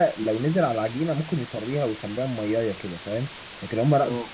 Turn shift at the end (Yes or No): No